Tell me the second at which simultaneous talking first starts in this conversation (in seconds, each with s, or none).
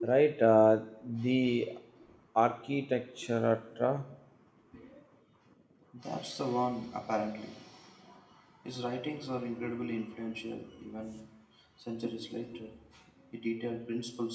none